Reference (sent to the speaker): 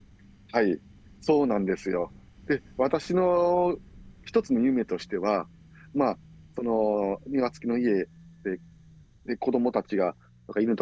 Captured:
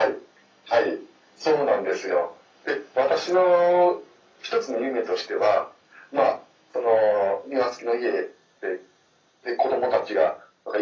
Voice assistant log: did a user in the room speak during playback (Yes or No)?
No